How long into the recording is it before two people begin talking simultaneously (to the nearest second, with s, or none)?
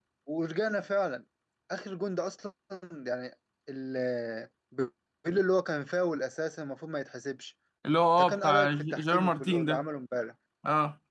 8 s